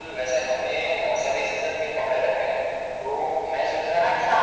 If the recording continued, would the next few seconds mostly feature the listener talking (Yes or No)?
No